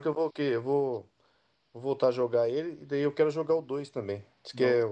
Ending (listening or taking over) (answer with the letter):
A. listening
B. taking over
A